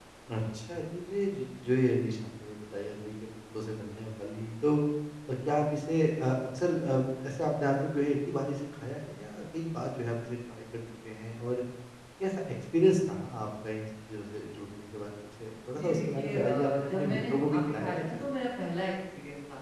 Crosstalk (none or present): present